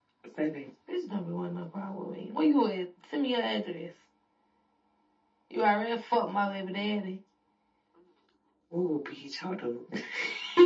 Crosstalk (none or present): none